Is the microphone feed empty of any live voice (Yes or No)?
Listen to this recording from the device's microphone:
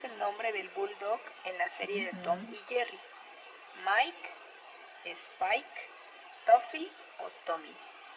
No